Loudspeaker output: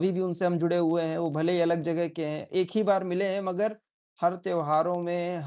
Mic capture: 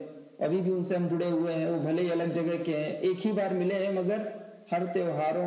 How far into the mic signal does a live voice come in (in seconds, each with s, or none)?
none